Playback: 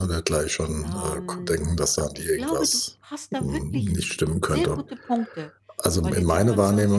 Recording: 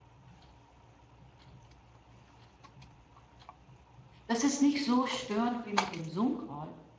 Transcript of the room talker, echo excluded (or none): Das ist nicht so störend wie mit dem Zoom-Call,